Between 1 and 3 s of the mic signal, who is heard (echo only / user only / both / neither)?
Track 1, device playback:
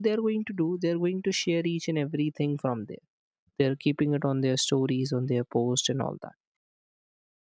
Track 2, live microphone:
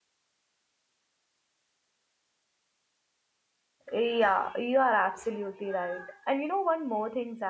neither